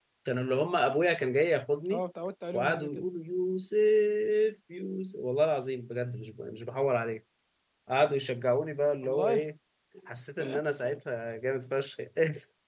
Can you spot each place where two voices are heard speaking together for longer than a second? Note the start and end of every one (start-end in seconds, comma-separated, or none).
none